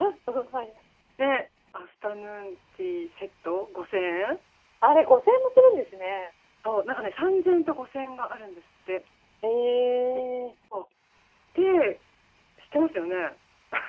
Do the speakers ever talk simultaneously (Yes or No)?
No